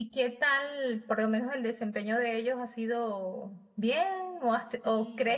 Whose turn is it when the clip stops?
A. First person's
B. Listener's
A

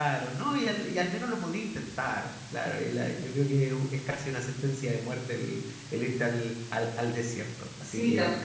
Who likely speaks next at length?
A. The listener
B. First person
A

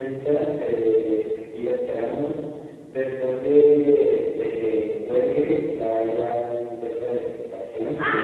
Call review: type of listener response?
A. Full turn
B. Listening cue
A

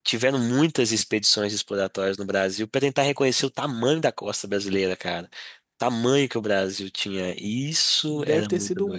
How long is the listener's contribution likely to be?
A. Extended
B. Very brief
A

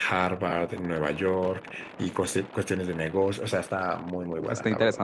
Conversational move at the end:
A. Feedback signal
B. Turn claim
B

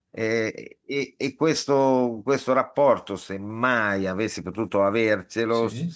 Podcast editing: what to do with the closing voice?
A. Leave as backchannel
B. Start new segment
A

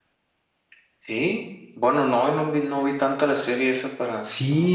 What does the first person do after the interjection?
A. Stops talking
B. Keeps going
A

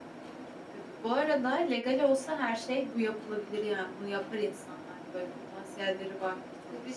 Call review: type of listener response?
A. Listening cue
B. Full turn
B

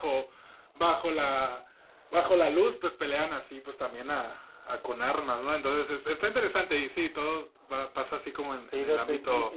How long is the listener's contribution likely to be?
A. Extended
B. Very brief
A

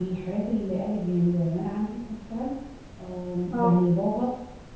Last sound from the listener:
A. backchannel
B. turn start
A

